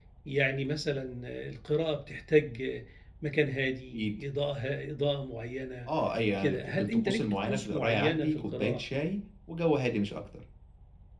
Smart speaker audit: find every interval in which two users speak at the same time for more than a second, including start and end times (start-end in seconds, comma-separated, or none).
6.4-8.8